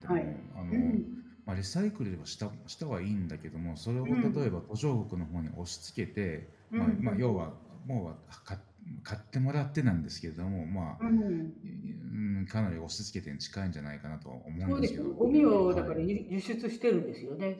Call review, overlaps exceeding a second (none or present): present